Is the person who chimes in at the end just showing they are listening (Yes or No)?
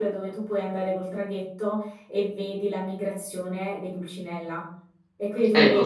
Yes